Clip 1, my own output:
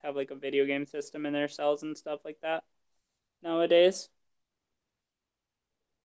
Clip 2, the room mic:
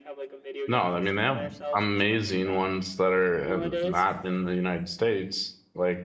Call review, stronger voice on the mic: user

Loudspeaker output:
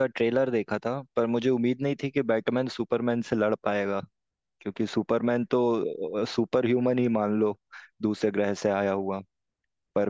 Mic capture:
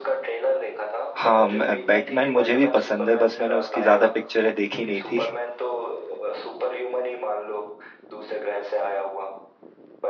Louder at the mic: user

